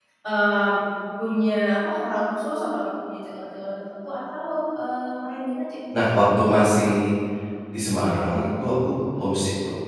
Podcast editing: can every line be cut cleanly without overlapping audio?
Yes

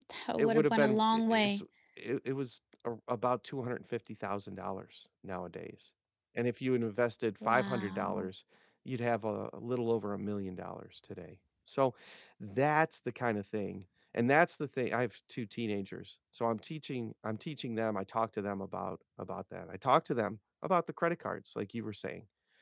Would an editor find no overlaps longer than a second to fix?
No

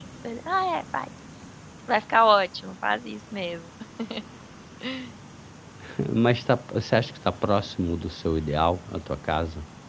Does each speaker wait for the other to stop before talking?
Yes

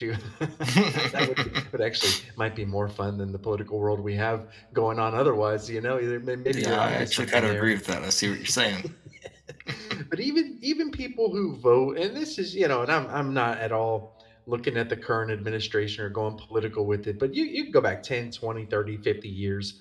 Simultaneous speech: Yes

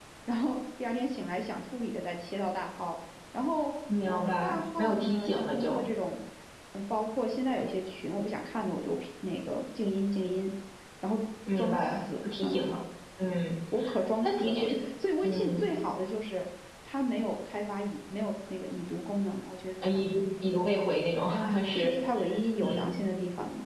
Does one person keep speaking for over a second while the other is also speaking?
Yes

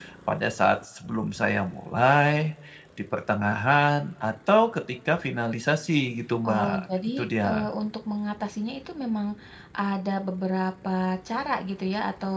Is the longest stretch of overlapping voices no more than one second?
Yes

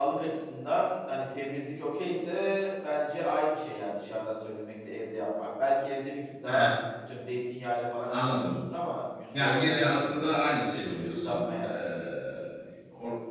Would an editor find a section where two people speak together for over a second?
Yes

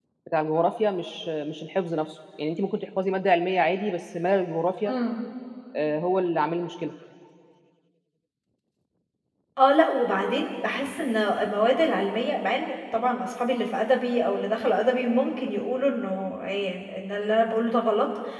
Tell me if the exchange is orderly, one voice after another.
Yes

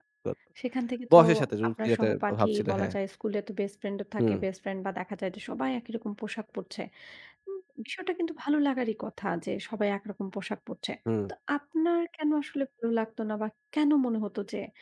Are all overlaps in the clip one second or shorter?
No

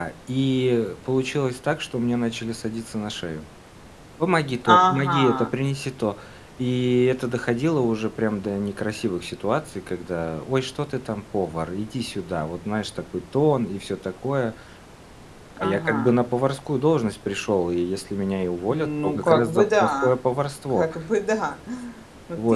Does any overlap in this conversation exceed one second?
Yes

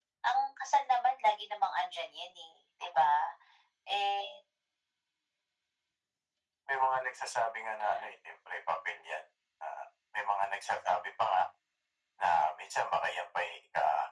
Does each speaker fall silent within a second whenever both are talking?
Yes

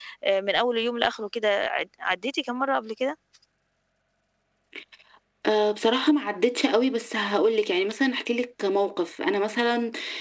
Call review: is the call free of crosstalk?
Yes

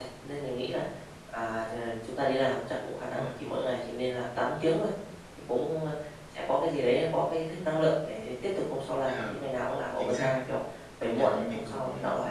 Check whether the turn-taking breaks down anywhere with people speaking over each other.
Yes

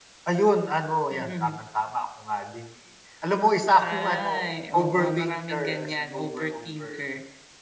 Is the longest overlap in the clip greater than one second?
Yes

